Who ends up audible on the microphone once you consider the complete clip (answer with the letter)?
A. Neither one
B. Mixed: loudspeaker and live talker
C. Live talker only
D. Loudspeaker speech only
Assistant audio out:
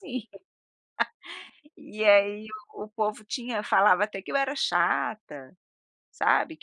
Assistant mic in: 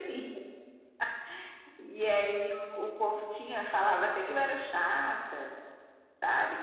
D